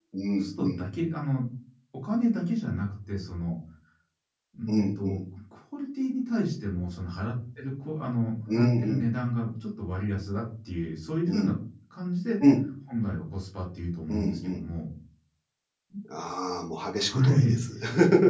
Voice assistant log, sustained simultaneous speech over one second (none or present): none